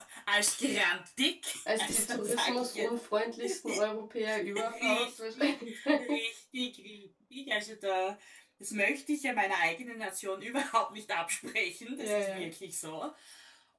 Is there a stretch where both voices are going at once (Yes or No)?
Yes